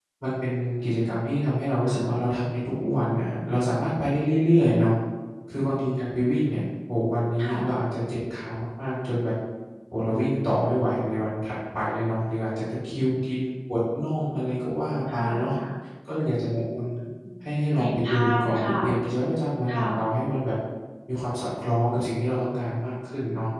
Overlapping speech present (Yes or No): Yes